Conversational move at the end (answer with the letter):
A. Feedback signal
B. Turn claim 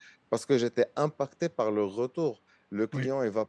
A